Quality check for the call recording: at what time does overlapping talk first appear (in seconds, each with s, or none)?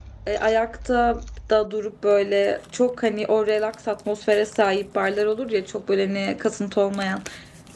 none